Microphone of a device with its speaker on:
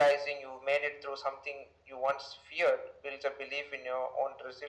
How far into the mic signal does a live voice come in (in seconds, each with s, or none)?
none